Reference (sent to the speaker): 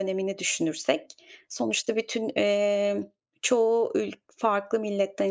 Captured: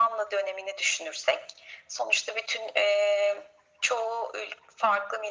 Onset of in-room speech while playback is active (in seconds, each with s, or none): none